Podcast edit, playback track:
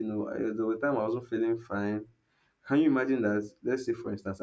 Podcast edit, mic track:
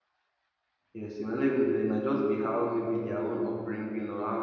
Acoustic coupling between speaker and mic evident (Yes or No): No